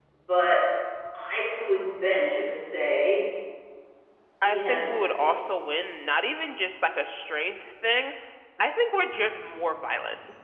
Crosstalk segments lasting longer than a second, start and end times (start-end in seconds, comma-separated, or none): 4.4-6.0